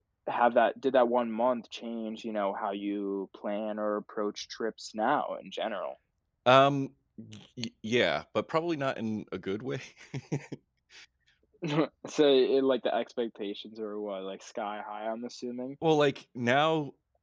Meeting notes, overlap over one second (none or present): none